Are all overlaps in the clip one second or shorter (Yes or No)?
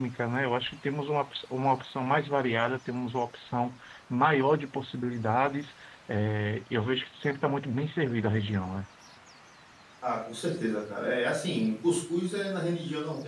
Yes